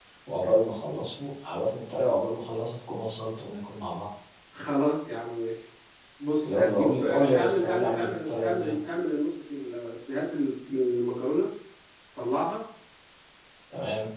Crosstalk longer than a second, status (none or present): present